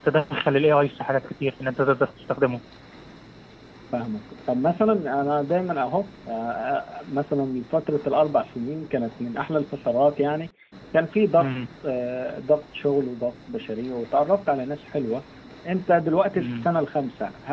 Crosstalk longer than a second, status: none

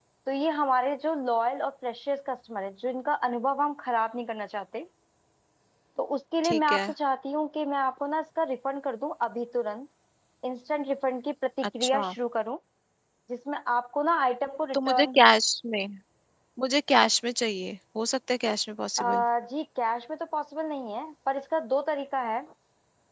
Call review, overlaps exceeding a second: none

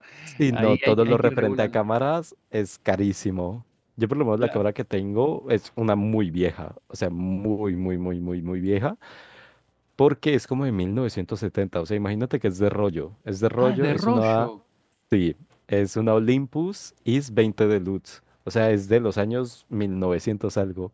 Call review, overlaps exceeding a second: present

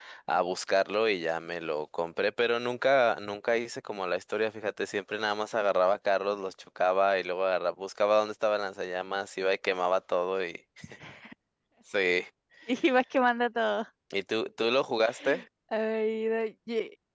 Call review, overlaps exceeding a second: none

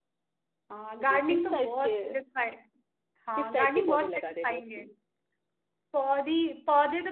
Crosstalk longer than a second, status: present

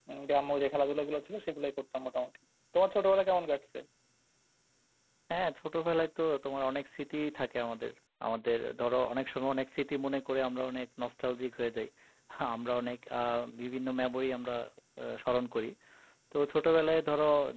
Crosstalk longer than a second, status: none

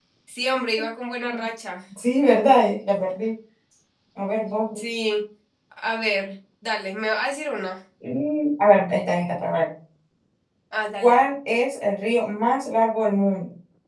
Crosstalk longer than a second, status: none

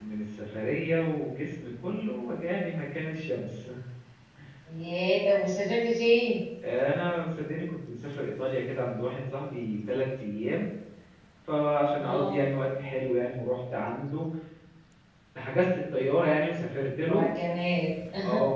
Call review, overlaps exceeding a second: none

